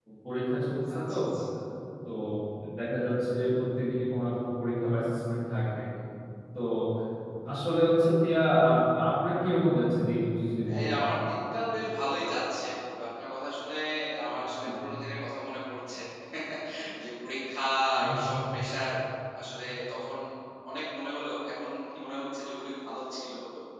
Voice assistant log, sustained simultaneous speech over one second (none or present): none